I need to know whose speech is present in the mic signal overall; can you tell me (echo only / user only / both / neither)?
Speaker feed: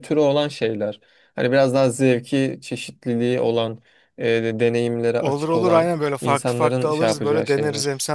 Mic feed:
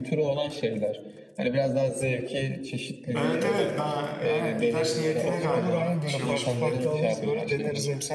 both